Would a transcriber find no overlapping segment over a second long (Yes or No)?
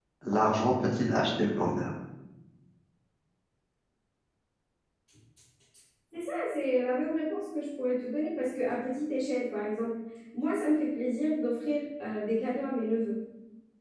Yes